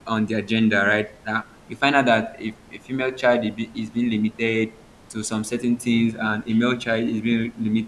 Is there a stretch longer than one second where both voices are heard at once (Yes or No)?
No